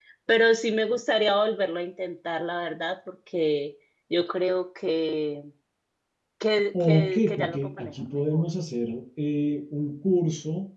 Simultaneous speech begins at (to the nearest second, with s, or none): 7 s